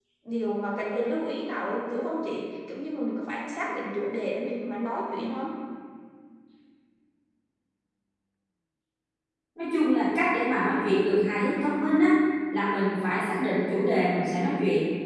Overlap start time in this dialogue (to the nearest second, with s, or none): none